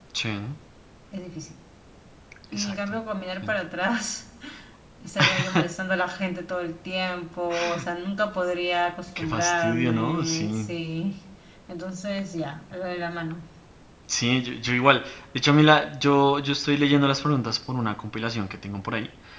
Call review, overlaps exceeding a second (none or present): present